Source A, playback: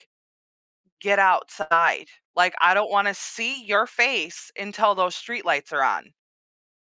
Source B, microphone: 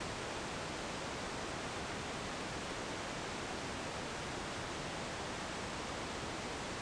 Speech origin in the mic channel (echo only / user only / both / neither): neither